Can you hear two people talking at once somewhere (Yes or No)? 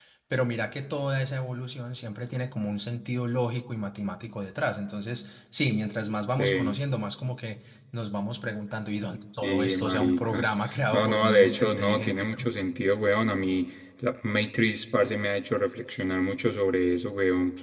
Yes